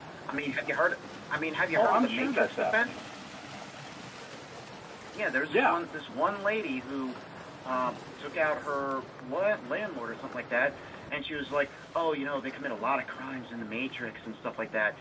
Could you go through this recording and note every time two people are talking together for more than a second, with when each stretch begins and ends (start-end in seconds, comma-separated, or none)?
1.8-3.0